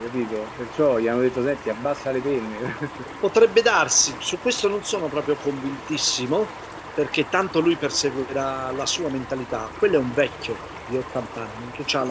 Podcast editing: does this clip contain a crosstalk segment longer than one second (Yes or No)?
No